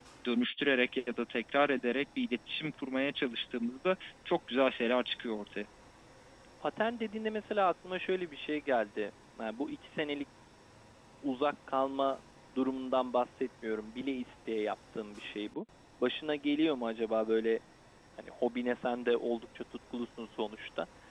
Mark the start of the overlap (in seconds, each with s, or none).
none